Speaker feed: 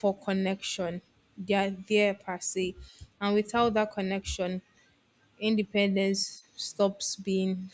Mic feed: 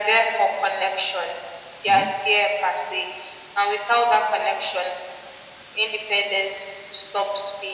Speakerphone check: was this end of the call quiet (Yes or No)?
No